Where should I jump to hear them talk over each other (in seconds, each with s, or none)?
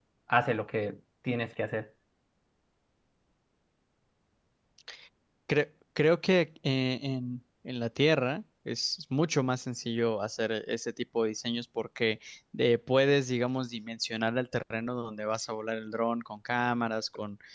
none